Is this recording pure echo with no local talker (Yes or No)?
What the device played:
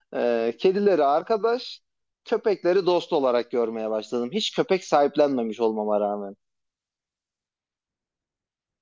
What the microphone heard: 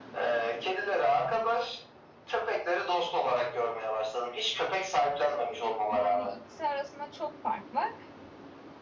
No